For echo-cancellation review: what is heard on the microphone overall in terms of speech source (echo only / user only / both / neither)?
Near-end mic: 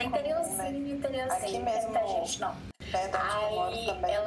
echo only